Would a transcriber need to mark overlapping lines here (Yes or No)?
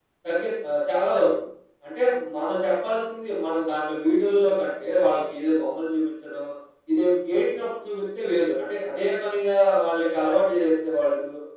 No